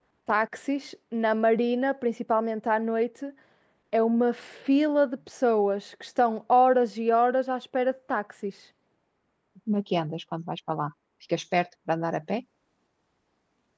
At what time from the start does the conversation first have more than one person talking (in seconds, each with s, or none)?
none